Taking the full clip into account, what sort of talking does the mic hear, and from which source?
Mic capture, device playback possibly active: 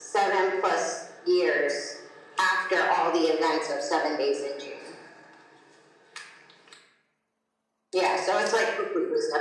echo only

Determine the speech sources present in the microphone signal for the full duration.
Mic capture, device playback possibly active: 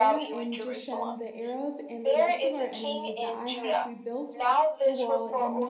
both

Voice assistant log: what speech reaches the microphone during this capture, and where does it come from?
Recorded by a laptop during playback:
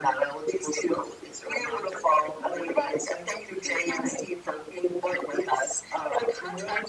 echo only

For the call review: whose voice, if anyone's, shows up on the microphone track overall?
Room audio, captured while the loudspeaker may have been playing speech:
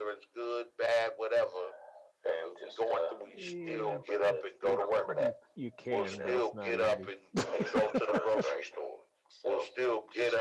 both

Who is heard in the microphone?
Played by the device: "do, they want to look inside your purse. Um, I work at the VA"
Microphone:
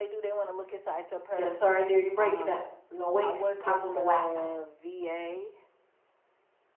both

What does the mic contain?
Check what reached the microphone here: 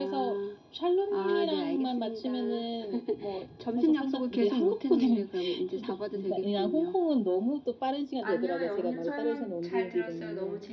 both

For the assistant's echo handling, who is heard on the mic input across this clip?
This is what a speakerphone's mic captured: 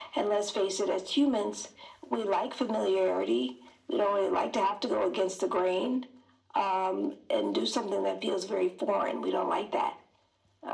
echo only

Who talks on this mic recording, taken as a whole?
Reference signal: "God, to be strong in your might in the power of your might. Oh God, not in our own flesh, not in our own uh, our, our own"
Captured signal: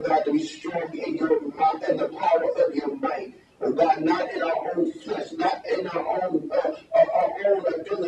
echo only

